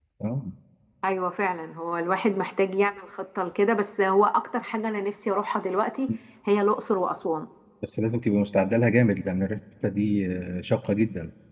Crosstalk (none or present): none